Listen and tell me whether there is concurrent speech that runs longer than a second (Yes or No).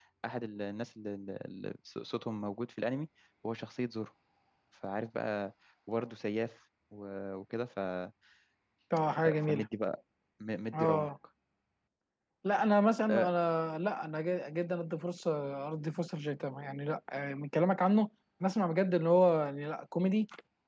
No